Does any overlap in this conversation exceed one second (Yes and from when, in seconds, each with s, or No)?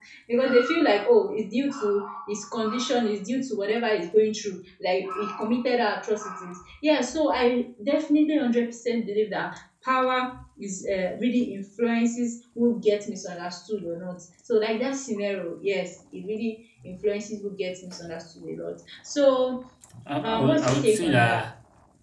Yes, from 20.2 s